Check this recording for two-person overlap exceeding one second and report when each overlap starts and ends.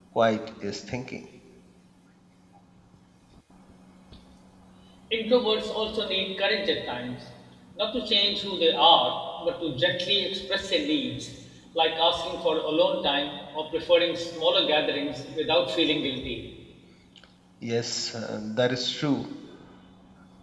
none

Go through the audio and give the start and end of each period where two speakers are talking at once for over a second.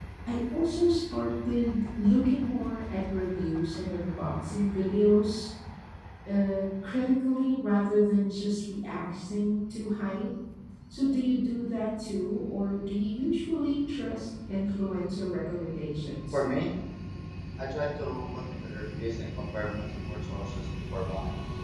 none

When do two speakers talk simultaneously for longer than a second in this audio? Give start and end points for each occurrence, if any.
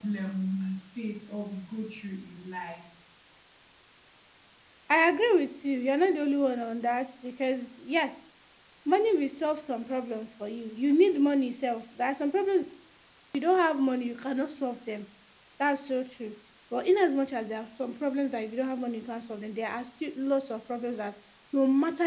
none

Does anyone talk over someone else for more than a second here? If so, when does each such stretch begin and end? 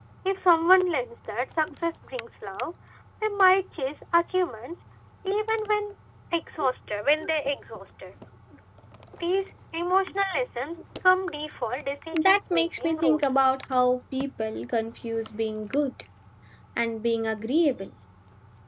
12.1-13.4

